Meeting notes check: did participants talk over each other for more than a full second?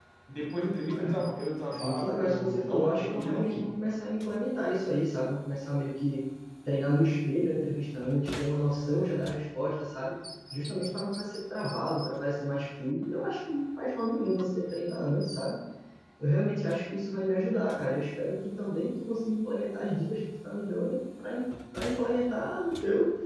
Yes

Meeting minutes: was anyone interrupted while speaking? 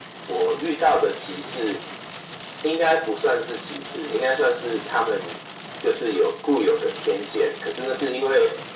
No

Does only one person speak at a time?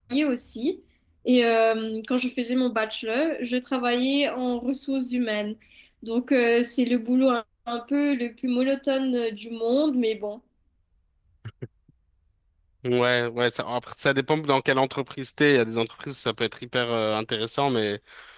Yes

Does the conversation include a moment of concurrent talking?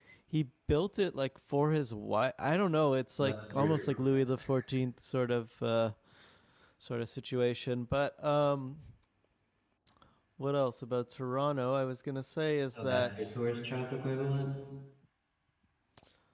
Yes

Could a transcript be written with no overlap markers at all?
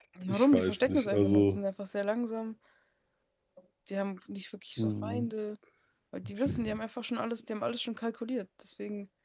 No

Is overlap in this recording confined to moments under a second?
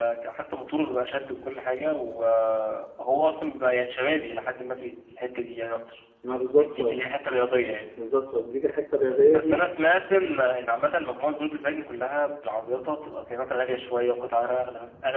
Yes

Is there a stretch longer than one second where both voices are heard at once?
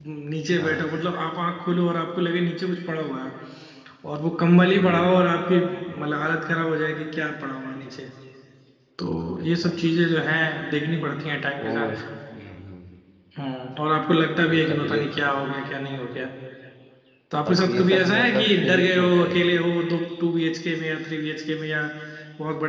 Yes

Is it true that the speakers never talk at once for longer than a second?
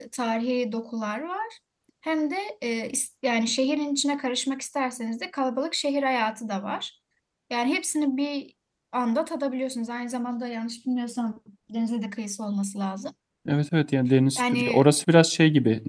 Yes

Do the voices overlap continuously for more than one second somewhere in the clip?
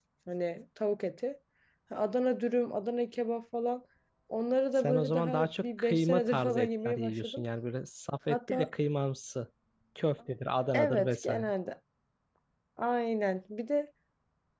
Yes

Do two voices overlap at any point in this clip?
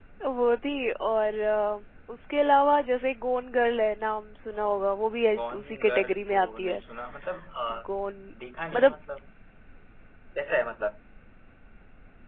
Yes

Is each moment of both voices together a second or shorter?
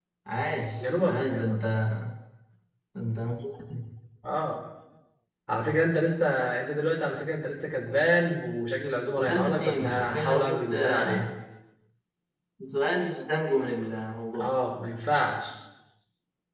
No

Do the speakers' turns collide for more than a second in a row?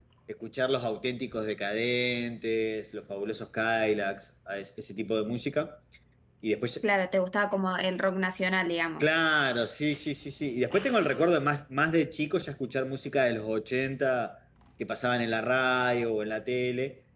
No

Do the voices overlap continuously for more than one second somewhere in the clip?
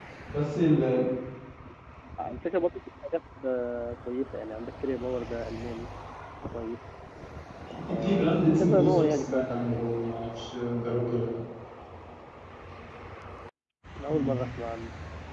Yes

